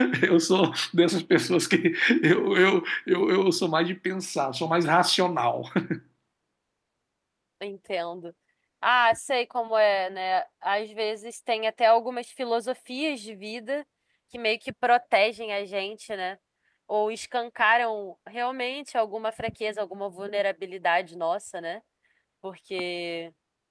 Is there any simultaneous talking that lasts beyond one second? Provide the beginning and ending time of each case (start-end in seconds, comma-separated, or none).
none